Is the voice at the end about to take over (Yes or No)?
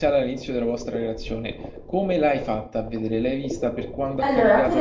Yes